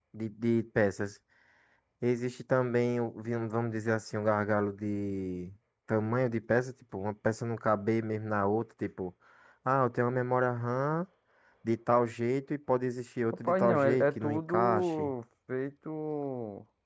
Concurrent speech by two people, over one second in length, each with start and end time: 13.4-15.1

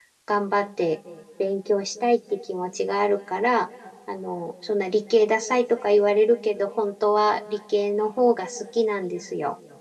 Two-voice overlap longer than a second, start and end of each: none

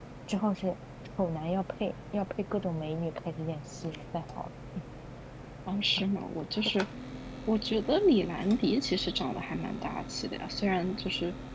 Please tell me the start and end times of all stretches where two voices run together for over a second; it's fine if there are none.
none

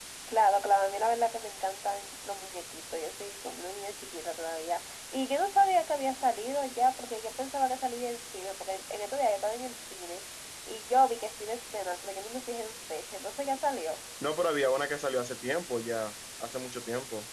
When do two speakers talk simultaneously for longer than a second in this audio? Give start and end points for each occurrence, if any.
none

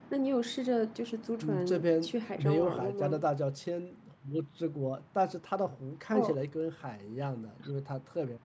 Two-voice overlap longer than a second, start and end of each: 1.4-3.2

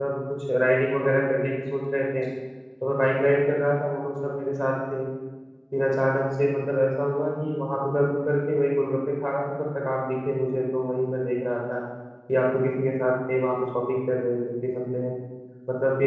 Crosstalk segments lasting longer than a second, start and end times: none

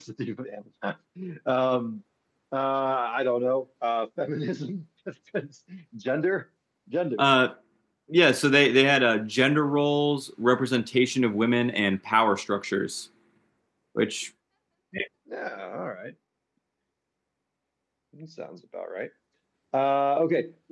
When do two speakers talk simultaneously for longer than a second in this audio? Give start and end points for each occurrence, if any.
none

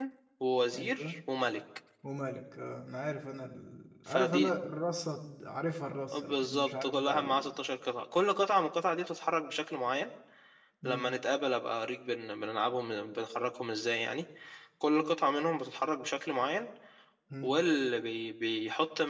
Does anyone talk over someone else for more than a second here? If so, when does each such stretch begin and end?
6.1-7.5

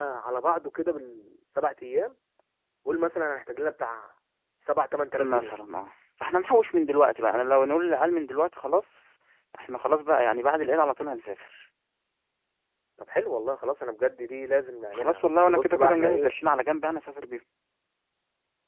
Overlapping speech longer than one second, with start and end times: 14.9-16.3

